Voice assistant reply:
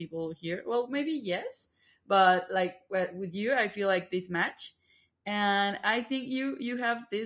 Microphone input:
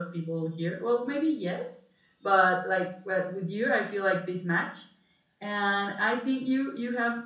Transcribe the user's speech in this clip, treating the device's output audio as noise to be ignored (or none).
none